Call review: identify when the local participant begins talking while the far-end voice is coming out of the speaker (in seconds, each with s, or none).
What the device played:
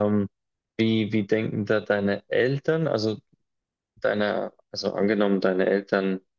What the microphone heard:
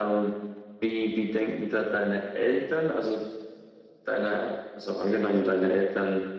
none